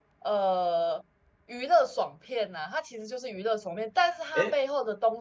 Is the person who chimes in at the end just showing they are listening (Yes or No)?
Yes